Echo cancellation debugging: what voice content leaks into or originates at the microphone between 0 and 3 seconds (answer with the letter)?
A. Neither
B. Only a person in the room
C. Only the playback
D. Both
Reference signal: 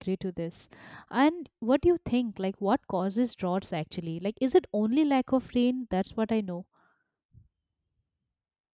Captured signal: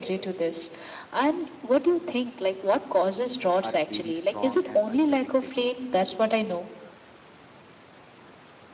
C